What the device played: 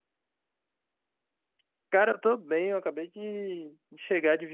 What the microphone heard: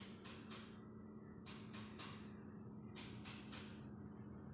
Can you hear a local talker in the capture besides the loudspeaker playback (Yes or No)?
No